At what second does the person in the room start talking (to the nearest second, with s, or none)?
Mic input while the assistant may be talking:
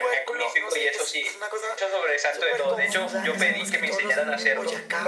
3 s